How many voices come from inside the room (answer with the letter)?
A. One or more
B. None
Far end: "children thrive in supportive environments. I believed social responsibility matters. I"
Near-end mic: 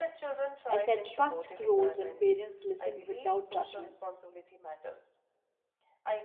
A